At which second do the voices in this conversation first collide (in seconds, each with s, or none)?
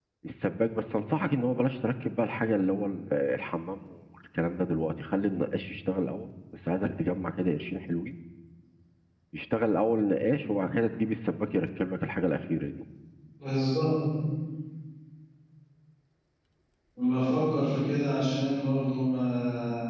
none